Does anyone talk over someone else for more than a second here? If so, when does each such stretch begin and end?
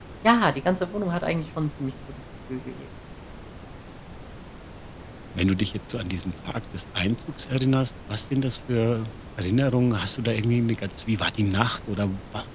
none

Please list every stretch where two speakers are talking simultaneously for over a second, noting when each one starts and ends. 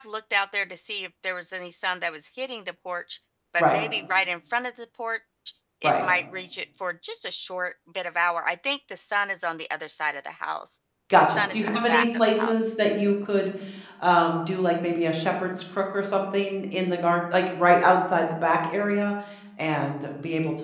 11.2-12.5

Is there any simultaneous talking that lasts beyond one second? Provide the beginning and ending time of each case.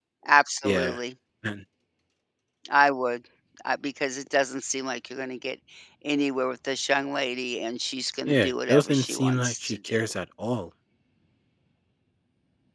8.3-10.1

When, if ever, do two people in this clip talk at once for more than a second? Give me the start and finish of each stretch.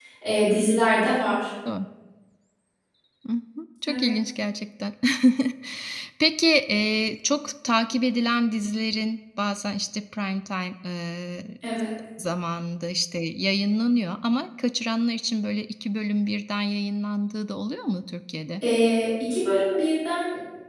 none

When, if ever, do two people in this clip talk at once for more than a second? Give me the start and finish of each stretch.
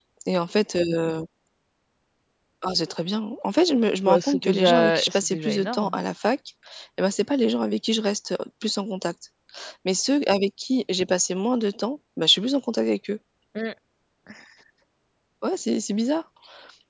4.0-5.9

